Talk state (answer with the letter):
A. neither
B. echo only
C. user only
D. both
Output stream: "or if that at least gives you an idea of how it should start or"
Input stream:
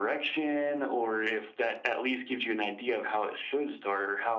B